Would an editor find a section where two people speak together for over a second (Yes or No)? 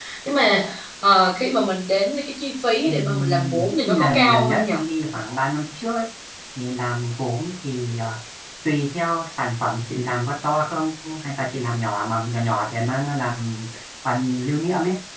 Yes